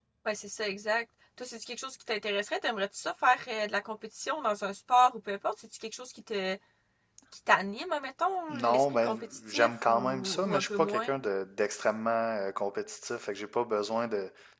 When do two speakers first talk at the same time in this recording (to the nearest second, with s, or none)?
8 s